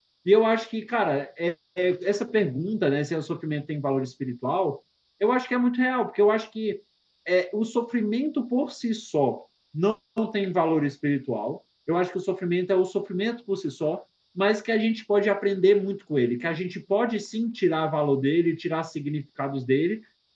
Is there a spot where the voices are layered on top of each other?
No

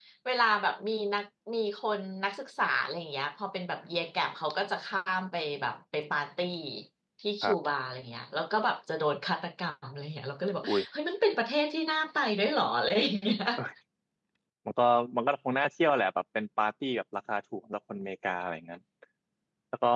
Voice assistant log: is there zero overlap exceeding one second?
Yes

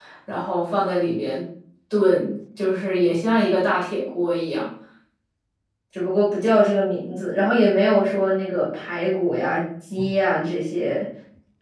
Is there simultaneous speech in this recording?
No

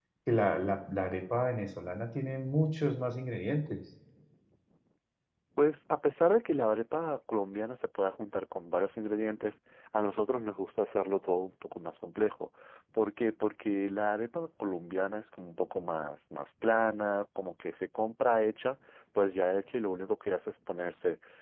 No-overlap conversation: Yes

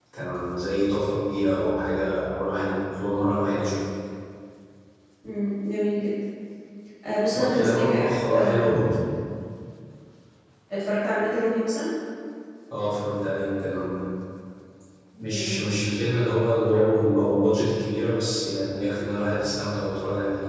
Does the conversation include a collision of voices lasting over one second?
Yes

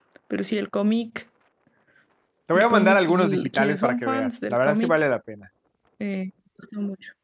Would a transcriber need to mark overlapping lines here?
Yes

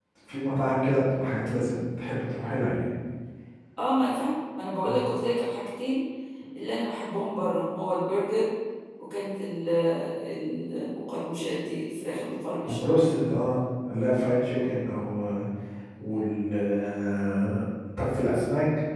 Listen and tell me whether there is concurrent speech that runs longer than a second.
No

